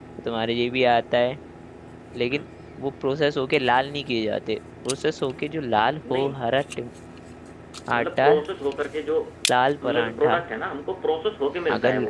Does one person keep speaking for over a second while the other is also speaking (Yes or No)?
No